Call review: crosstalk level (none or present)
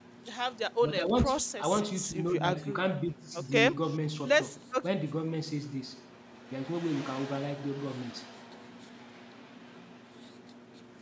present